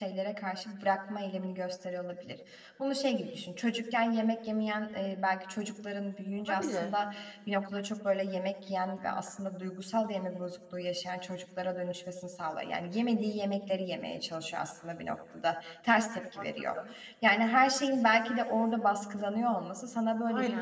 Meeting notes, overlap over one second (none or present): none